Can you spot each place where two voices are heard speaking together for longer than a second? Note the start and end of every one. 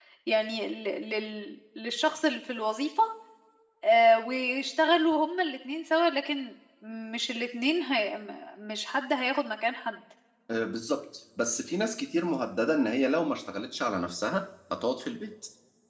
none

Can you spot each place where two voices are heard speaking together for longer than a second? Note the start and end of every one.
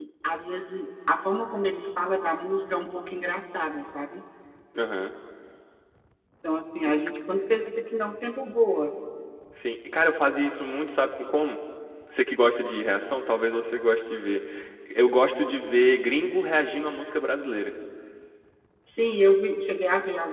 none

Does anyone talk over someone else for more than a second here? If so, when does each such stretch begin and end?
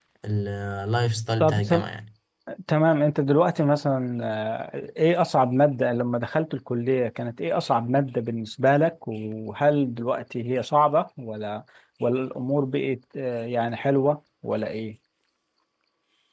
none

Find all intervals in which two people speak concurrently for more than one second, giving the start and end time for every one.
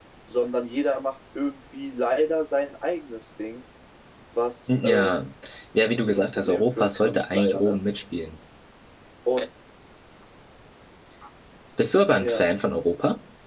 6.1-7.8

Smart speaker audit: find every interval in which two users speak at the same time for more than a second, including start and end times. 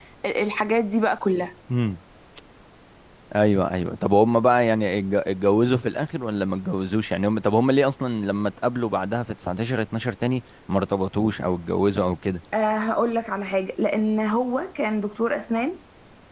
none

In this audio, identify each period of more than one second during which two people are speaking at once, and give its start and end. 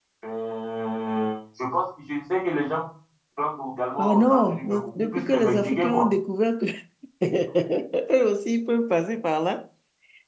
4.0-6.1

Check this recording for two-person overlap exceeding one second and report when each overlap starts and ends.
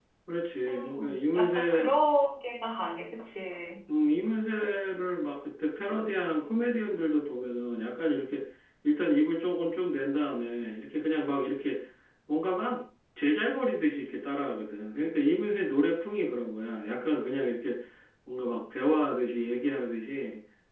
0.7-1.9

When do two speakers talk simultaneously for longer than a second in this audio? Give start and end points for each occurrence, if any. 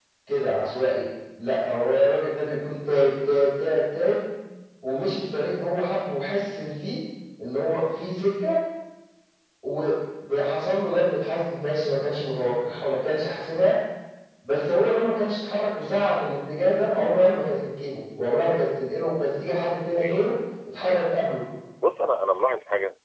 none

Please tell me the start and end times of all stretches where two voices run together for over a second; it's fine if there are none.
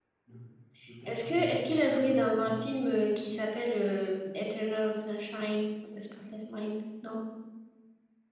1.1-2.7

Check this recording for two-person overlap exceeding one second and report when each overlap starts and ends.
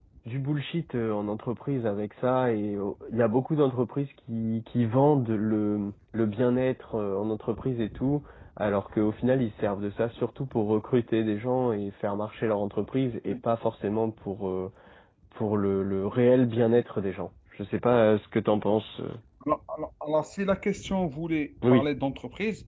none

